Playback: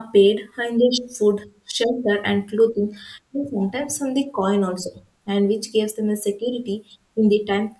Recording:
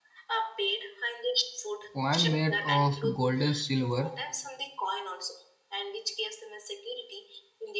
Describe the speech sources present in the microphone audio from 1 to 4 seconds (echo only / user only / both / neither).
both